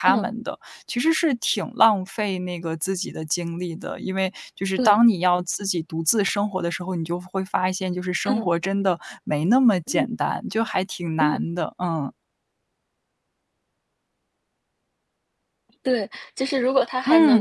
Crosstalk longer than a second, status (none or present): none